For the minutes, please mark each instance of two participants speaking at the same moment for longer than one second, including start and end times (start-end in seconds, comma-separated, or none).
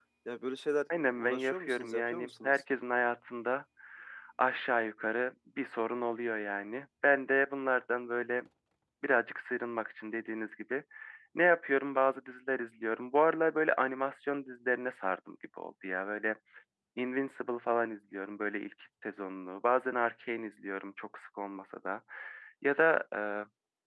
0.9-2.5